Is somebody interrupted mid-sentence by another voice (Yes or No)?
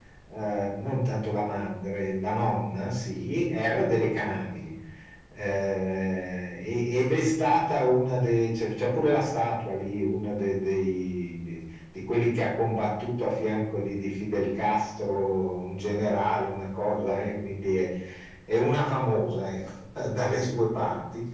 No